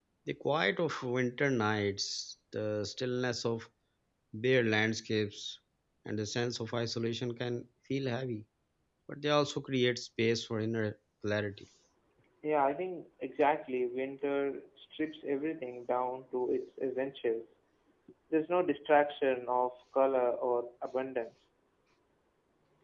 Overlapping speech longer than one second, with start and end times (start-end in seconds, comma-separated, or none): none